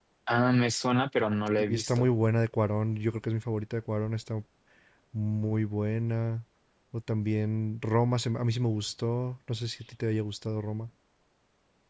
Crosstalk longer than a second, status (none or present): none